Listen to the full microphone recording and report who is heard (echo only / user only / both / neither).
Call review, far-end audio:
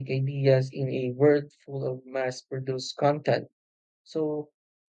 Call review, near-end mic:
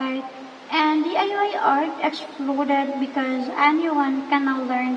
user only